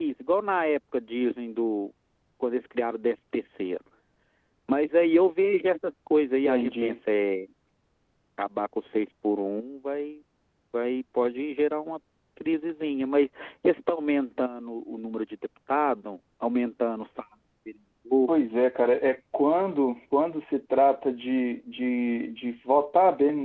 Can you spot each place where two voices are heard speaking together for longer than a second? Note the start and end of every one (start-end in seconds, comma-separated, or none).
none